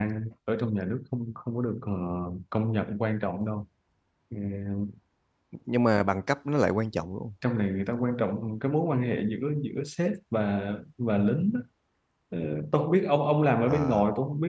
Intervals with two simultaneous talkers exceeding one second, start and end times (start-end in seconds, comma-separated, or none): none